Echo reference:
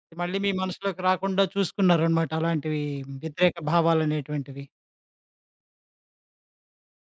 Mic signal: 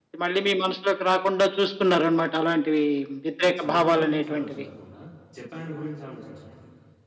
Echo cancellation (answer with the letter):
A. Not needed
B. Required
B